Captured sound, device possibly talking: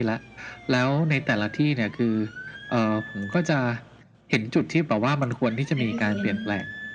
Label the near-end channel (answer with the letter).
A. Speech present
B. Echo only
A